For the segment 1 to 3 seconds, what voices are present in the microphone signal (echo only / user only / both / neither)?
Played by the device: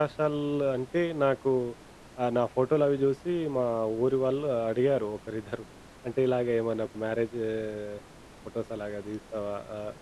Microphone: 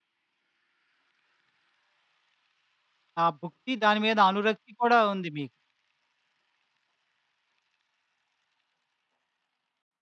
neither